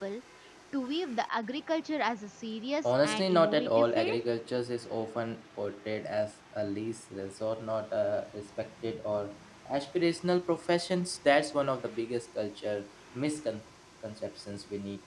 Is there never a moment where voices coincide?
No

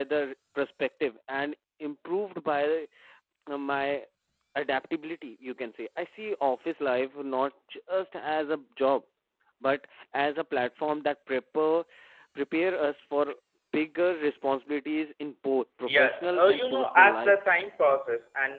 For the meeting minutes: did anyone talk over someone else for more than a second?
Yes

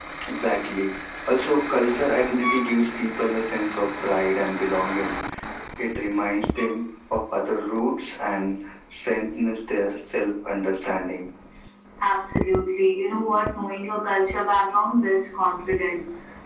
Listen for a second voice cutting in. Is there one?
No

